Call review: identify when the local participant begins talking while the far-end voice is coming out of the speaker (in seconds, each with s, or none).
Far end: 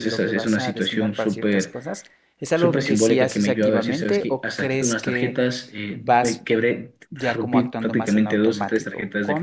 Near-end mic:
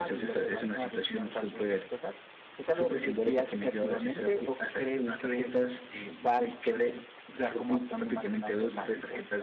none